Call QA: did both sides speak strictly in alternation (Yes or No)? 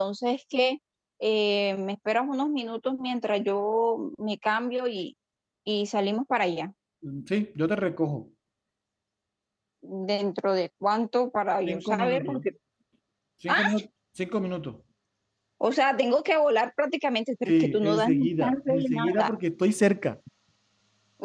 No